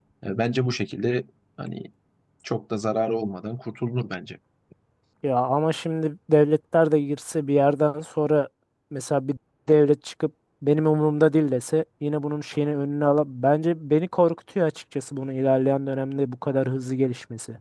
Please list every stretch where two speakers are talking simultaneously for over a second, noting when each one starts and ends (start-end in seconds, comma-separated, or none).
none